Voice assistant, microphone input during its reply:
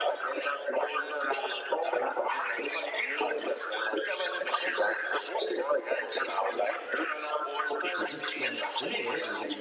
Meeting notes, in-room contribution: present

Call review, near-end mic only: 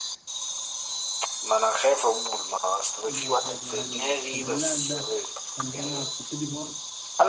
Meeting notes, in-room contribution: present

